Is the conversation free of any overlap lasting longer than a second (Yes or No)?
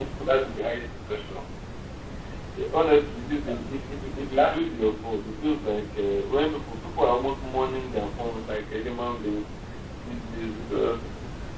Yes